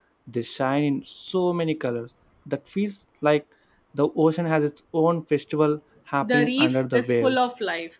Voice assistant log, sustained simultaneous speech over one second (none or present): present